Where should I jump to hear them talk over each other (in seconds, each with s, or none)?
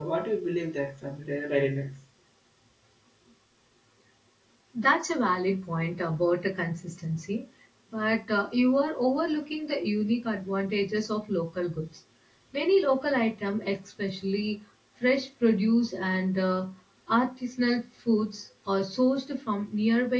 none